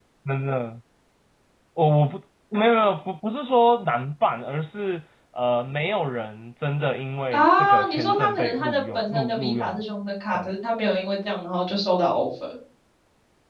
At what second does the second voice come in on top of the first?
7 s

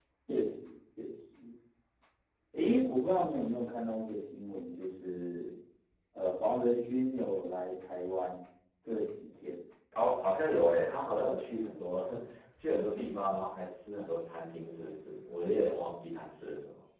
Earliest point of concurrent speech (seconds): none

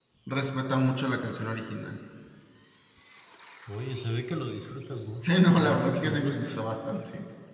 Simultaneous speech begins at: 5 s

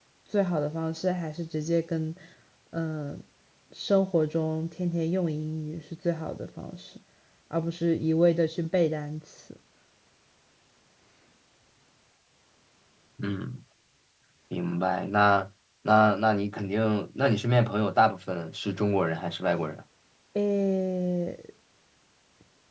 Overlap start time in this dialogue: none

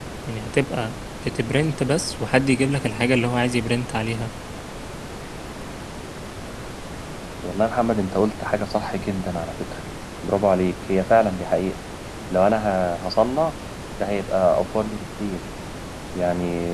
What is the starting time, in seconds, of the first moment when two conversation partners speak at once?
none

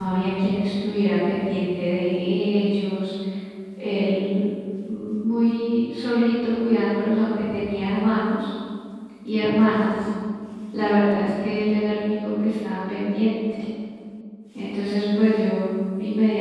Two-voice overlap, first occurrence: none

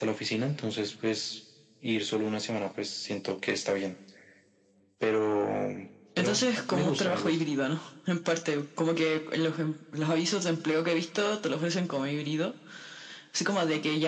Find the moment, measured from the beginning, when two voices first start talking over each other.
6 s

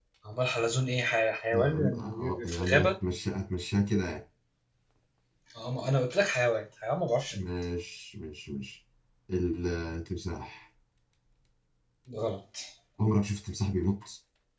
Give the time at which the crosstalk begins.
2 s

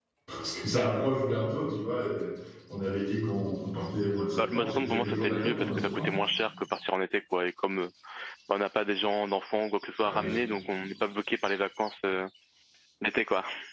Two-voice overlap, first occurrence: 4 s

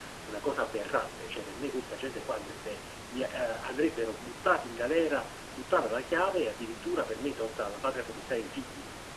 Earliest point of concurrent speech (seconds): none

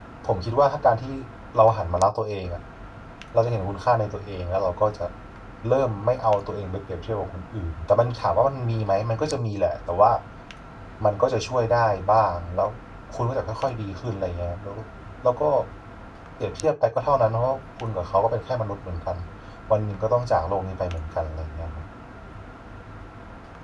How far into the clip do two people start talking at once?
none

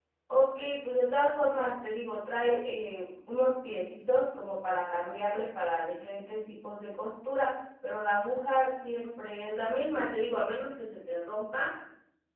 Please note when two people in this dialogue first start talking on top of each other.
none

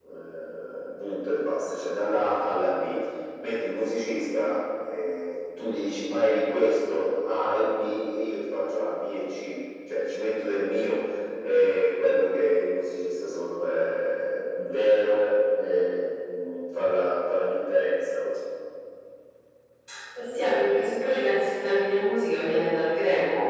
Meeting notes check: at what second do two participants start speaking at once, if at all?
none

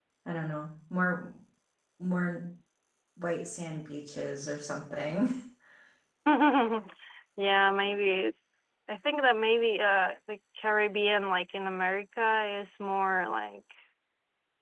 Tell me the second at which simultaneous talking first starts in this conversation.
none

